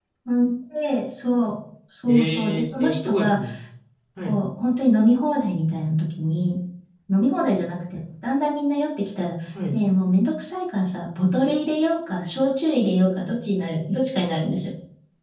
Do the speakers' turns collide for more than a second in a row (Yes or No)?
Yes